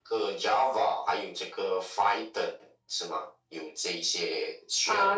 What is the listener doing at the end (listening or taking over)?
taking over